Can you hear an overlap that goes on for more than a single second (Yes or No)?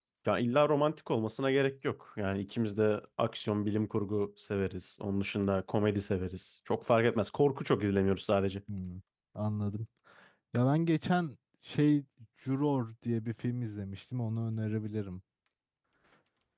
No